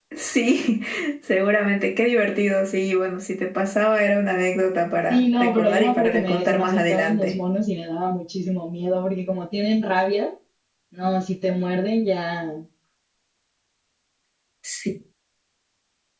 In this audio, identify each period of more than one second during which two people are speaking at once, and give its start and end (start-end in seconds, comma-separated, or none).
5.1-7.3